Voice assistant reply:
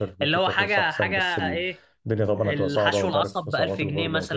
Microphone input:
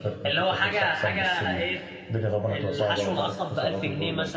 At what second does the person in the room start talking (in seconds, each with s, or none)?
none